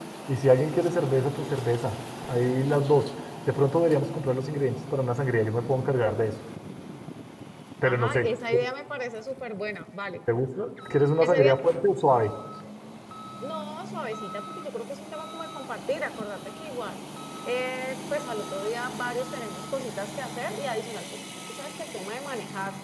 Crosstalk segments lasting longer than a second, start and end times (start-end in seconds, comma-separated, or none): none